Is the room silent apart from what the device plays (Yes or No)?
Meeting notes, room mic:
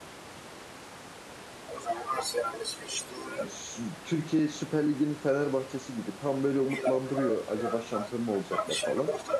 No